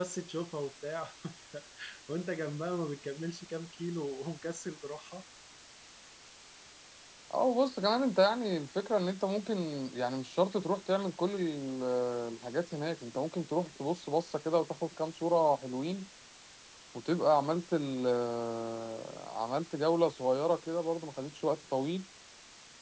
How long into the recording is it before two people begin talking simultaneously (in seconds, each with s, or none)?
none